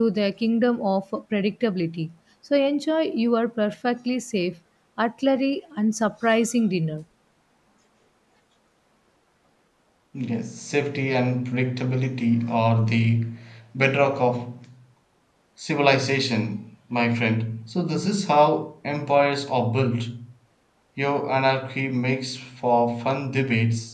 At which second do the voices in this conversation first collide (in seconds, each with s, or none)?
none